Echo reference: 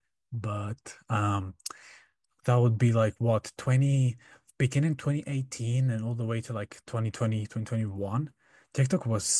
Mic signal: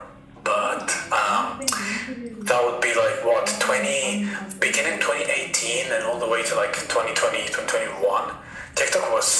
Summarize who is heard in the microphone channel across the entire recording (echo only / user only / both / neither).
both